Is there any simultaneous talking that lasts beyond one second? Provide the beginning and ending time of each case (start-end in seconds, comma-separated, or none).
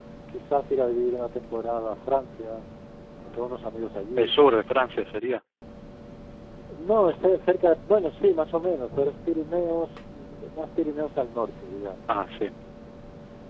none